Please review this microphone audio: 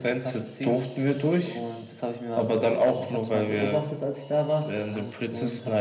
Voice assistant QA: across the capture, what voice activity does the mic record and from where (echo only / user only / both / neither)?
both